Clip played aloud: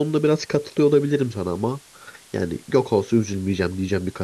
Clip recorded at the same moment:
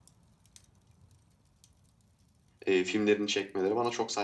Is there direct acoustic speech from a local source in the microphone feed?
Yes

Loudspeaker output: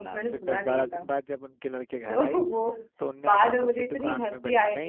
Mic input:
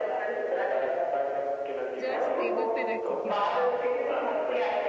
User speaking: Yes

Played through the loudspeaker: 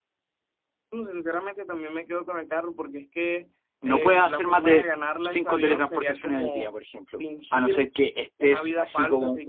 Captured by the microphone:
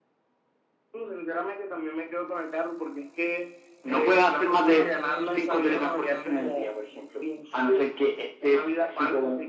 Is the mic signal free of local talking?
No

